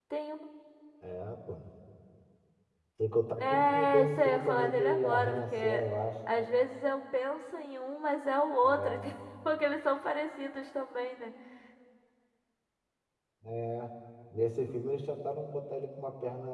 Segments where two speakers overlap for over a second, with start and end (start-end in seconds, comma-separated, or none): 3.4-5.8